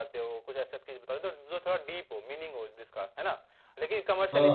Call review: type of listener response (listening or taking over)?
listening